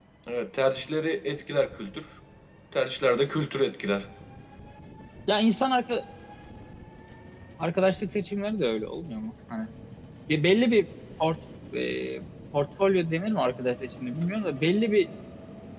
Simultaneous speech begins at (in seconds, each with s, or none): none